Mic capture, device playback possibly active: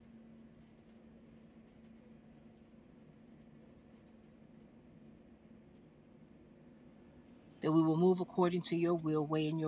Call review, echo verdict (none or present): none